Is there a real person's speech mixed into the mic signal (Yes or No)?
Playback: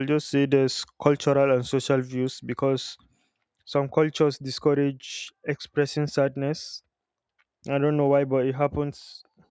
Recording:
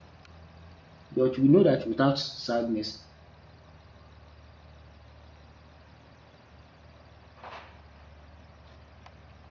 Yes